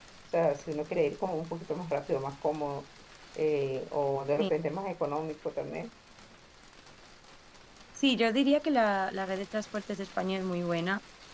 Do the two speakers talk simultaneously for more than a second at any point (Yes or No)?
No